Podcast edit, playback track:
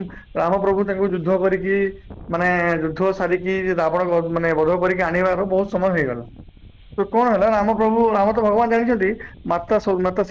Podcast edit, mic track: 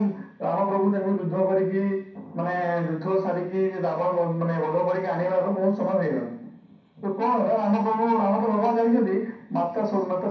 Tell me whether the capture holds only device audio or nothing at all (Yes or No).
Yes